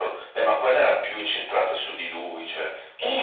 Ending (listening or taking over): taking over